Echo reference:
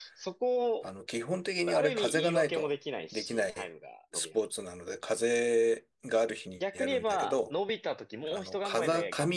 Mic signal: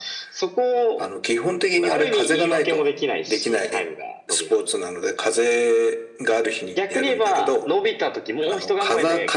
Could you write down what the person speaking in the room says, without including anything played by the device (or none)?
none